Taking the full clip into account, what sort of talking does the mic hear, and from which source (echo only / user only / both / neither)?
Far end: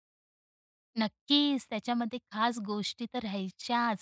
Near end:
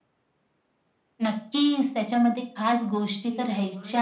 both